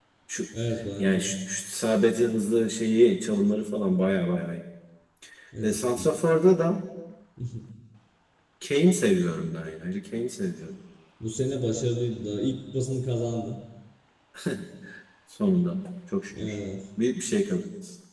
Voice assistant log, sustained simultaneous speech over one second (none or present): none